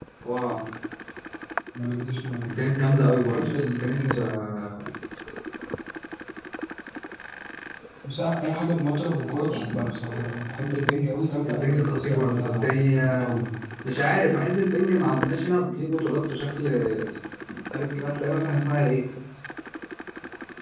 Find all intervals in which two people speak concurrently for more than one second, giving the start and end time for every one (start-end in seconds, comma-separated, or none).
3.2-4.4, 11.4-13.3